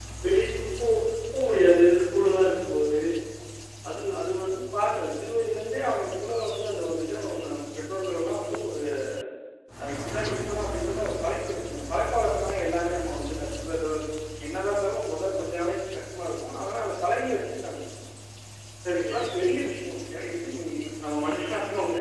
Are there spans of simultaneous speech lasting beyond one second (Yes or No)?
No